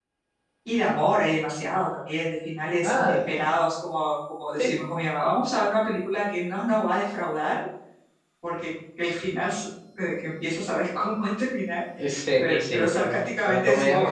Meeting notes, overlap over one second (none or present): present